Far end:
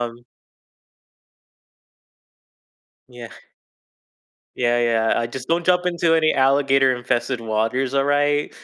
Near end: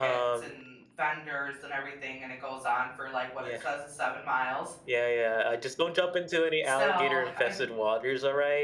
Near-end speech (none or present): present